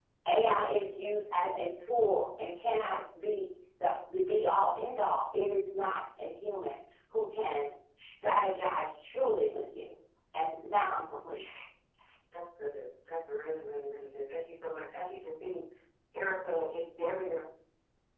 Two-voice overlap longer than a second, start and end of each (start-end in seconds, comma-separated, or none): none